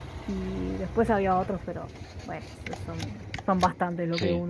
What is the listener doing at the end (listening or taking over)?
taking over